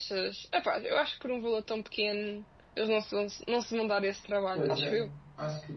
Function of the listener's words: taking over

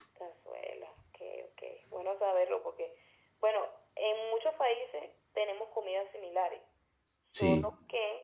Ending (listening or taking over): listening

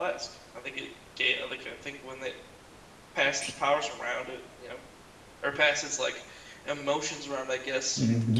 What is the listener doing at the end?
taking over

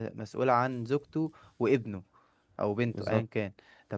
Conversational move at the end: listening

